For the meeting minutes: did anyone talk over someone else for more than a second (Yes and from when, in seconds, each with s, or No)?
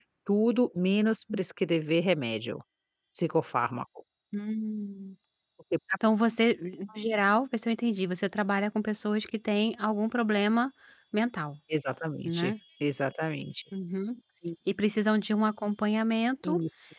No